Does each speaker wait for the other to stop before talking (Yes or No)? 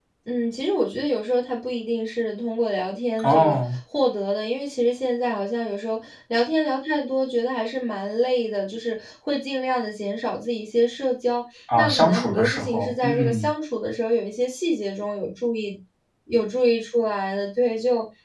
No